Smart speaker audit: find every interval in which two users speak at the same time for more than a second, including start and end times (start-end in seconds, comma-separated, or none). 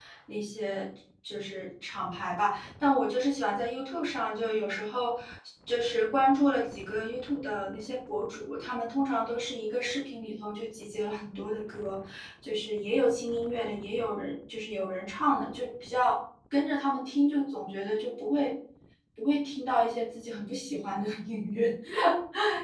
none